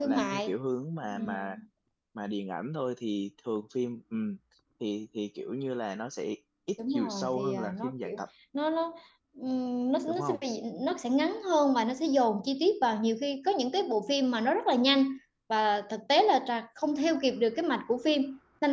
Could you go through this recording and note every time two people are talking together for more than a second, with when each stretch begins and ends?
6.9-8.1

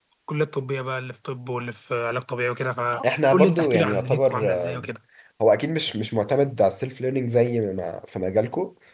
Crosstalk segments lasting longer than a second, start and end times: 3.3-4.9

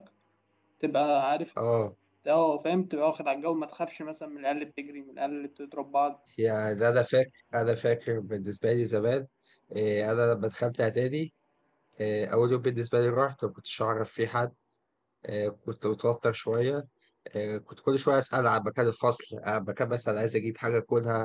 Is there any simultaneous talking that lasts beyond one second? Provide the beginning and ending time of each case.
none

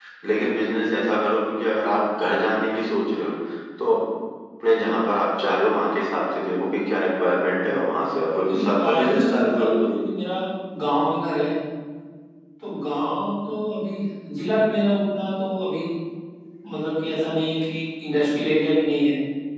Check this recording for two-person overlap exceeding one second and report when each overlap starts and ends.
8.5-9.9

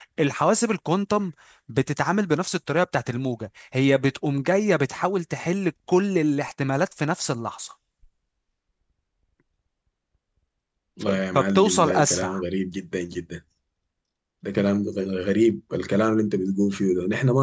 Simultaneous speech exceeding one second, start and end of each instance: 11.0-12.4

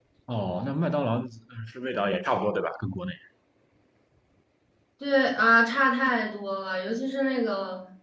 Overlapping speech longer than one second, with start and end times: none

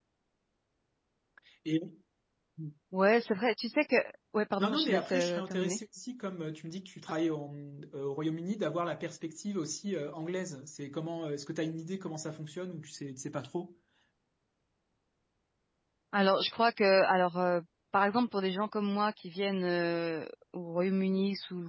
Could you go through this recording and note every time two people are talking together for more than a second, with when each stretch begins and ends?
4.6-5.8

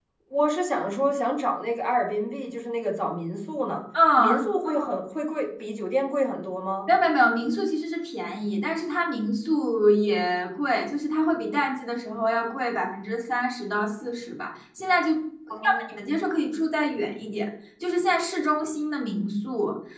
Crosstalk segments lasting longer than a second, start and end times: none

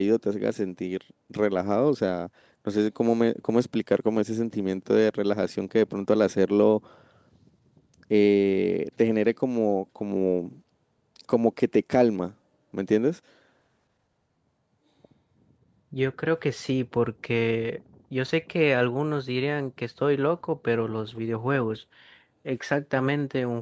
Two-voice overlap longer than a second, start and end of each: none

